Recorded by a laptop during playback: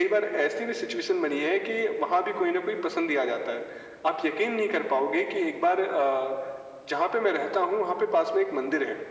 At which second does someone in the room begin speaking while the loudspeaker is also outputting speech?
none

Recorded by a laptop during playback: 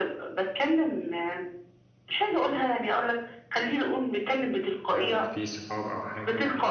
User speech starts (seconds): 5 s

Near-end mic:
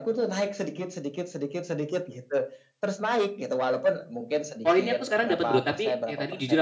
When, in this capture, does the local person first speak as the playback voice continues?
5 s

